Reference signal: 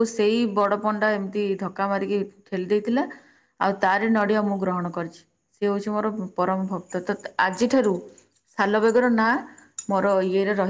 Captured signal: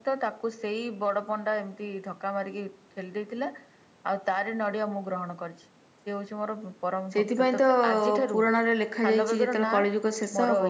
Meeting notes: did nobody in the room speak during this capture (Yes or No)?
No